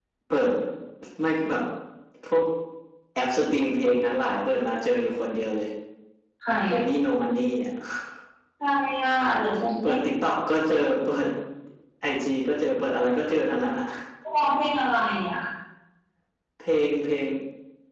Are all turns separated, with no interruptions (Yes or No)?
Yes